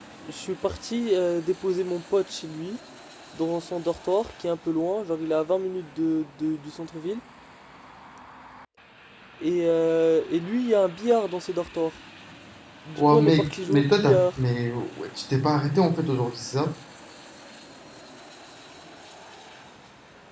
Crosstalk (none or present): present